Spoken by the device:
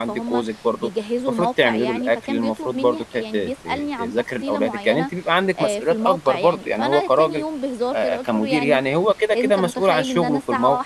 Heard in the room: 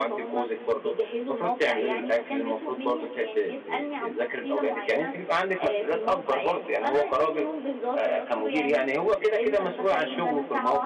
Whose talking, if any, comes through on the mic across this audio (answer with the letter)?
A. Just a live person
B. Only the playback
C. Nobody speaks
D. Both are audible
B